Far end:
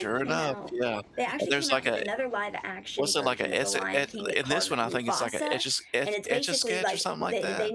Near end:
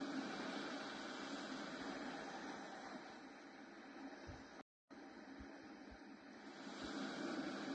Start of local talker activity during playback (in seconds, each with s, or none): none